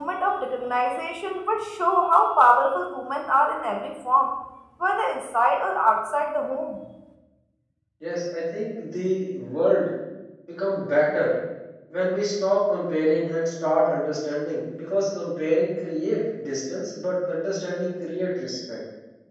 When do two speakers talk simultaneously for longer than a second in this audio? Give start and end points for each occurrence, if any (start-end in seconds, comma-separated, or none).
none